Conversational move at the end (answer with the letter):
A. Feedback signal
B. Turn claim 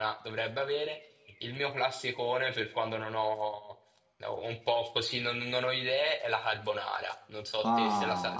B